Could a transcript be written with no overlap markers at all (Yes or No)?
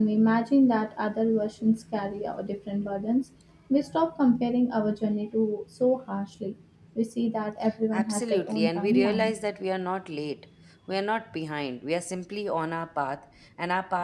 No